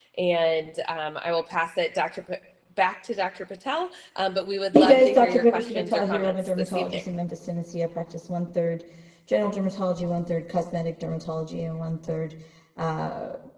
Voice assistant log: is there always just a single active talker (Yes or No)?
No